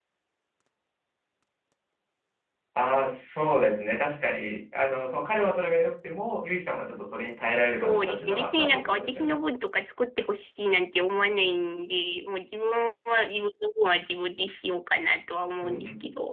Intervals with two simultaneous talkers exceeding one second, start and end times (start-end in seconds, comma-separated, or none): 7.7-9.4